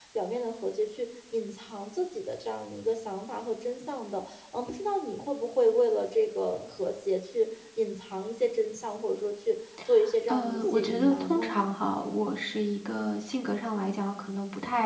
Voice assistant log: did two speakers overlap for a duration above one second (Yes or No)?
Yes